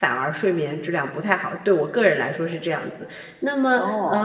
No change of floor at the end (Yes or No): Yes